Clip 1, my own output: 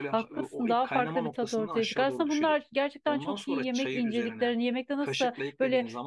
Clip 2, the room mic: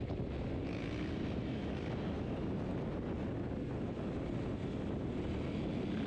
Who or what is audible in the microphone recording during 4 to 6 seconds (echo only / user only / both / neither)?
neither